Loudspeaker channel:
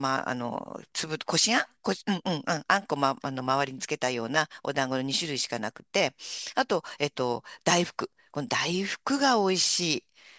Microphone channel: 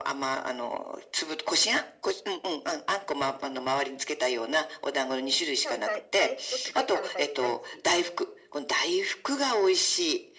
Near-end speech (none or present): present